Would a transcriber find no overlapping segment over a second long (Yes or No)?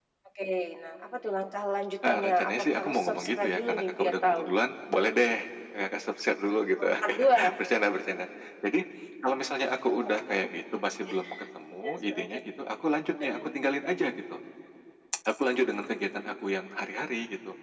No